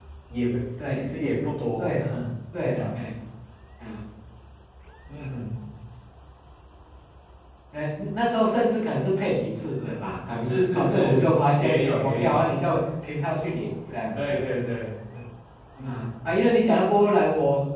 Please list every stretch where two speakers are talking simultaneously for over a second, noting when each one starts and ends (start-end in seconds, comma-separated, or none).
10.4-12.4